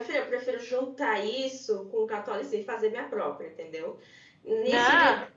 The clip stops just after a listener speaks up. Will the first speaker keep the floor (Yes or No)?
Yes